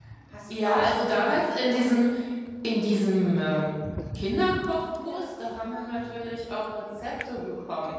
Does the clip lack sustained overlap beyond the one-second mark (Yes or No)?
No